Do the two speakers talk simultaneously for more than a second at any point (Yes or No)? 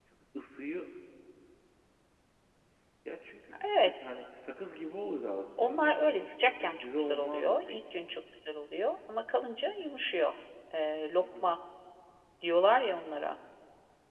Yes